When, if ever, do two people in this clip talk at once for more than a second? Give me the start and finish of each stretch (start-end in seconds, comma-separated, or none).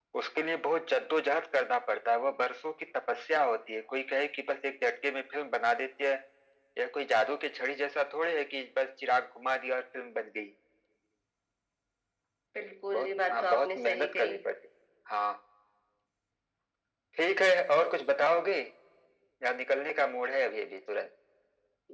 12.9-14.3